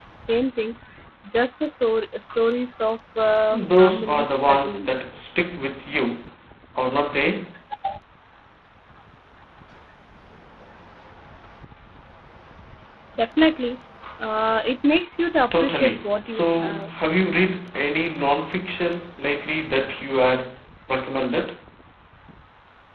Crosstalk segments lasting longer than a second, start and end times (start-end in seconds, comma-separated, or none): 3.5-4.9, 15.5-16.9